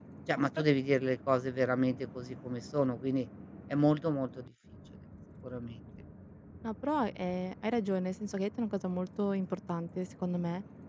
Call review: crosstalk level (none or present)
none